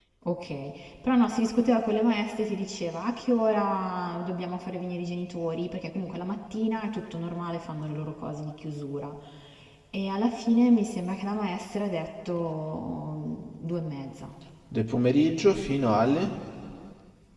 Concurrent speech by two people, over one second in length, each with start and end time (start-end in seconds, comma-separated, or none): none